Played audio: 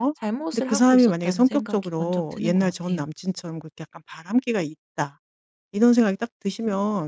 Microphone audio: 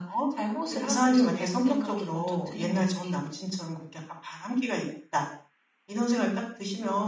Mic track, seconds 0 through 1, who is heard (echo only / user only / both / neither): echo only